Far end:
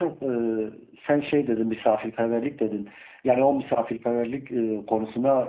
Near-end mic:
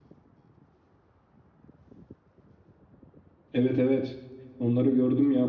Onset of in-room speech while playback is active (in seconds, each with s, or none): 3.5 s